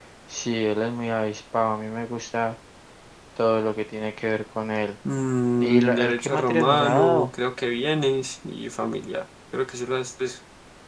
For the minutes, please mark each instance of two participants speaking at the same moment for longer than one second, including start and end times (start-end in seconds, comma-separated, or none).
5.6-7.3